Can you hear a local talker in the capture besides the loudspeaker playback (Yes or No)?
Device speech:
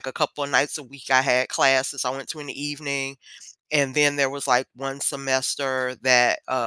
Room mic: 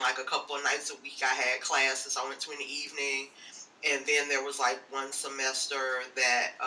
No